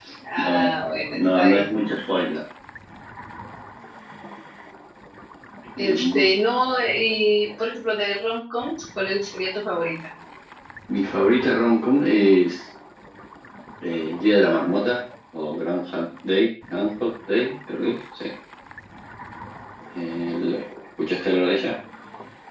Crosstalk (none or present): present